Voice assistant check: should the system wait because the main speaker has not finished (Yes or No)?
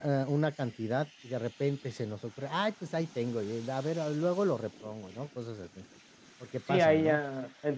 No